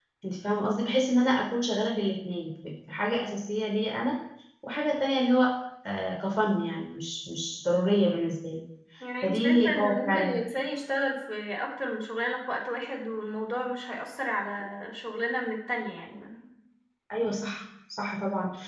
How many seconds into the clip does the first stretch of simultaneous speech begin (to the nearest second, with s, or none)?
9 s